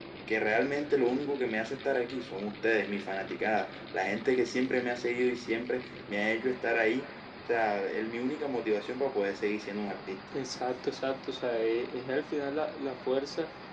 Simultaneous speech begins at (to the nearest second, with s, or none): none